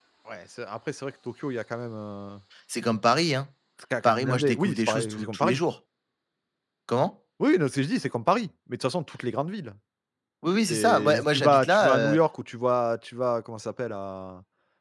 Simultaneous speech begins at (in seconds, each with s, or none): 4.0 s